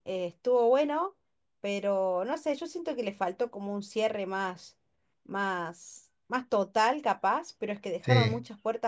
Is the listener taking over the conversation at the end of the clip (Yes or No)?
No